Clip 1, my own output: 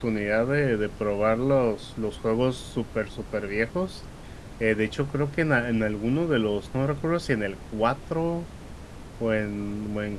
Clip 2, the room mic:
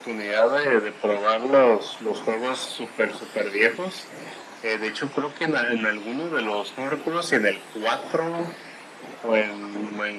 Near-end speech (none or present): none